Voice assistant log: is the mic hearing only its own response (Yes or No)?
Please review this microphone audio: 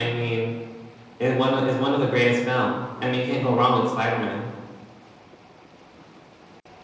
Yes